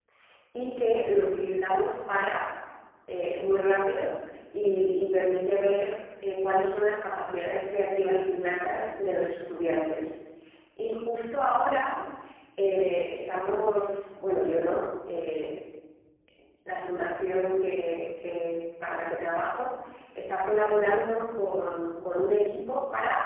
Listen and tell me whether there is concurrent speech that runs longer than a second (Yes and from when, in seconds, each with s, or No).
No